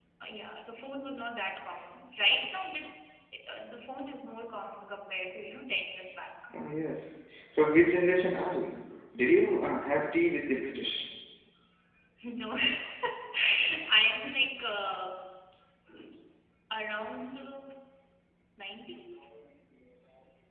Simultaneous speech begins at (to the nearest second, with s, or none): none